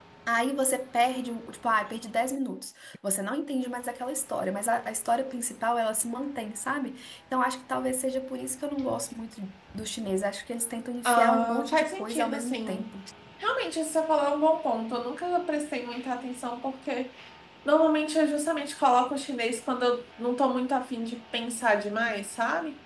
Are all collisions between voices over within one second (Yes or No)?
No